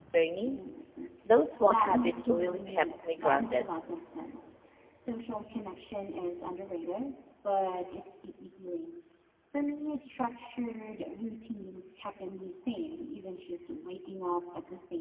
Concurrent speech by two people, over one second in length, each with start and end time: 1.6-3.6

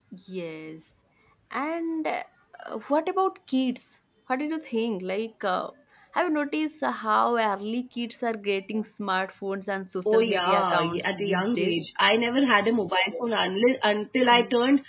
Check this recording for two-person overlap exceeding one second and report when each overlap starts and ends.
10.1-11.7

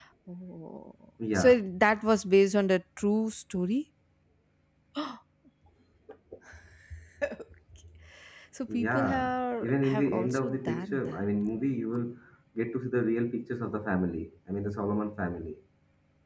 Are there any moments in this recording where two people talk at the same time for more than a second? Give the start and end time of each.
8.7-11.2

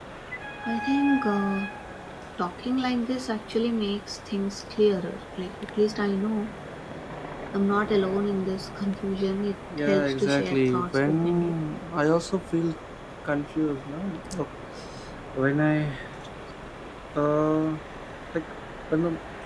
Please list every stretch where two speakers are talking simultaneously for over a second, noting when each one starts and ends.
9.8-11.5

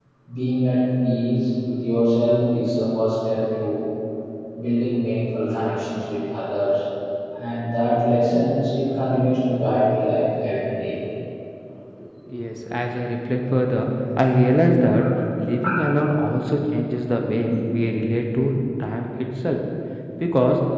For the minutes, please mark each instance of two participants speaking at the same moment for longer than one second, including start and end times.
none

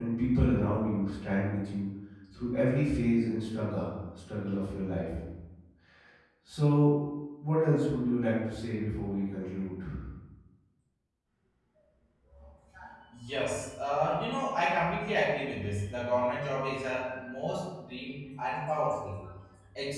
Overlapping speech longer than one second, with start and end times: none

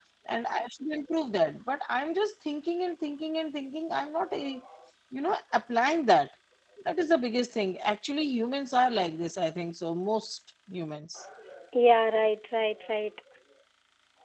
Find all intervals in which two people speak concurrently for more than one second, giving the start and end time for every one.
none

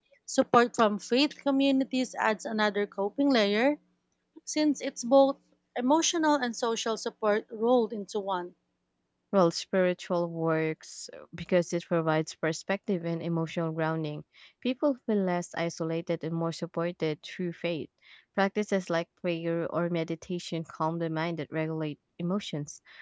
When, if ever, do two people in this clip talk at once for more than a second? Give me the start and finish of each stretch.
none

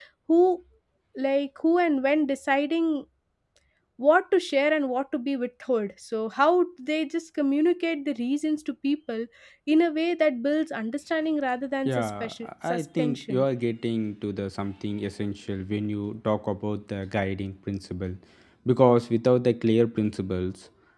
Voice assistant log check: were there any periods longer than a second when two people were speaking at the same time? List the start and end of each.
11.8-13.4

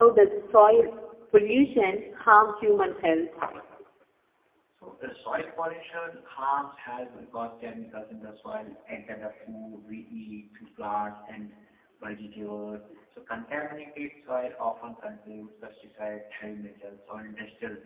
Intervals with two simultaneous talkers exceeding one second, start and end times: none

